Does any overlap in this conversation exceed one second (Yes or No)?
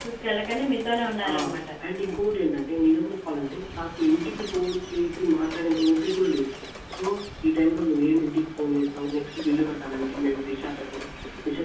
No